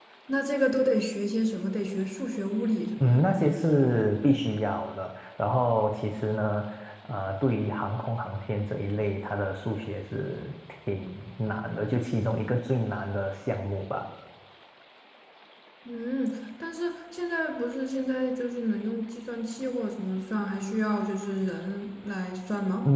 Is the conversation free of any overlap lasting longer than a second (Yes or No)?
Yes